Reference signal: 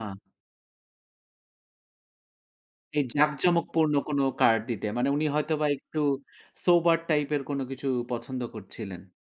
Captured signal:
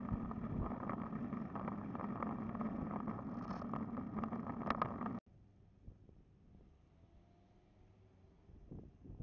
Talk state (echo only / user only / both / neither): neither